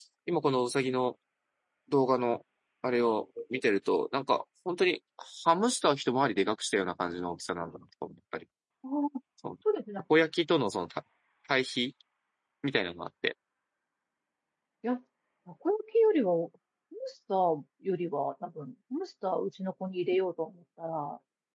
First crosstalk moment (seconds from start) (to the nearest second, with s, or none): none